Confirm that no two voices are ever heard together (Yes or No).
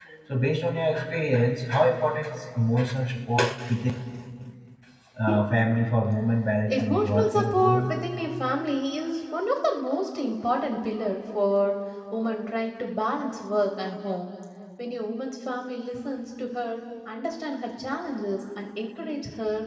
No